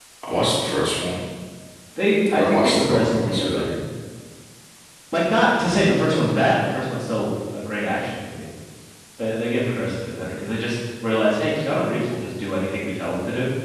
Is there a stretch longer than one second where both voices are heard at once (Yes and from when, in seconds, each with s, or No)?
Yes, from 2.4 s